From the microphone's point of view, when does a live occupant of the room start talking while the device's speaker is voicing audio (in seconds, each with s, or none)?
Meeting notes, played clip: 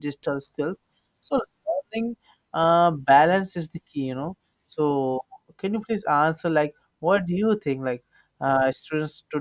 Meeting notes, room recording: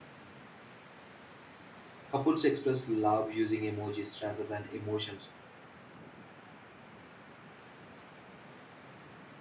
2.1 s